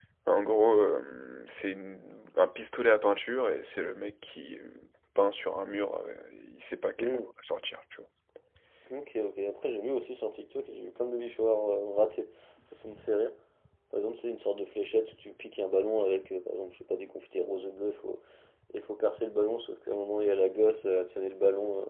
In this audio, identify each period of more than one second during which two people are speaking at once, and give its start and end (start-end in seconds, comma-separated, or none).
none